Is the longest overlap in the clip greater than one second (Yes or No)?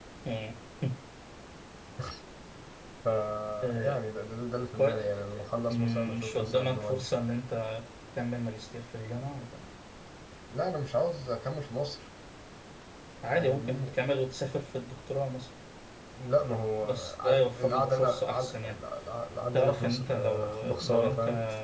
Yes